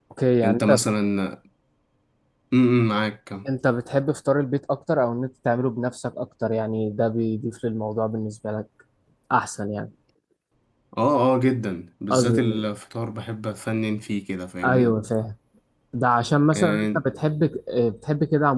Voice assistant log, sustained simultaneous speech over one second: none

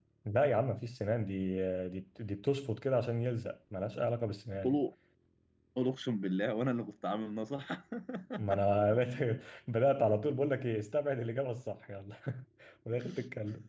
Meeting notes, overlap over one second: none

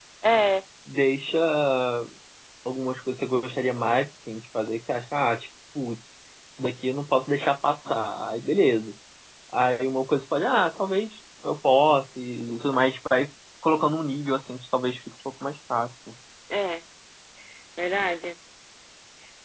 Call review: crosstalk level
none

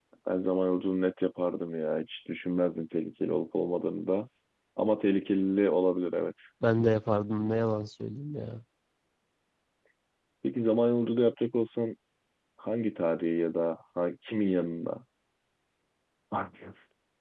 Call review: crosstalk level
none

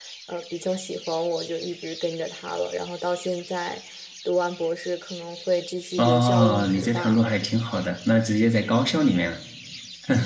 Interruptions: present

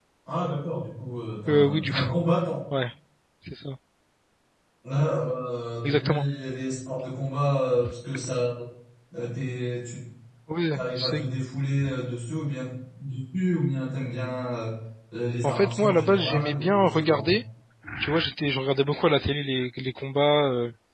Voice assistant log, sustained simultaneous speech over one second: present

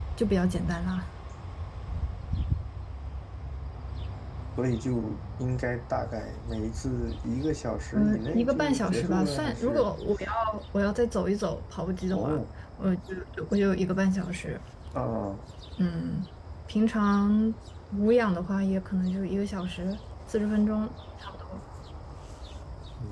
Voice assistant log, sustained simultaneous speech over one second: present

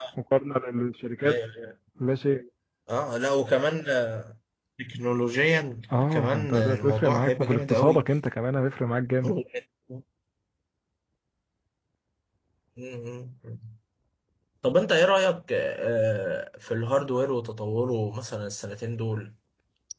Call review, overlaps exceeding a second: present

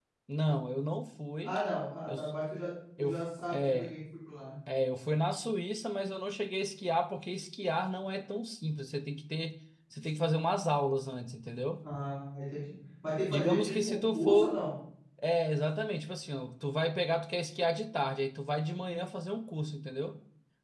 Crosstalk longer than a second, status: present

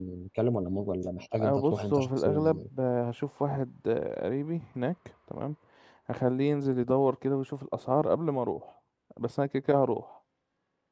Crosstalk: present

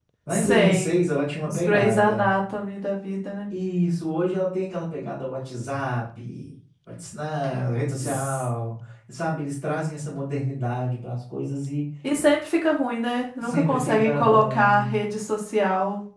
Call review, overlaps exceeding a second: present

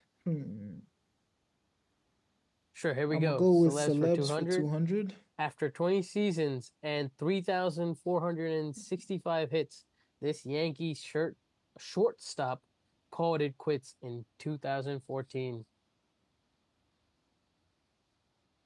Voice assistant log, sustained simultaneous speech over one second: present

